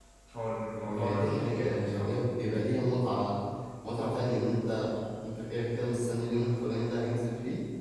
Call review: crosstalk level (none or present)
present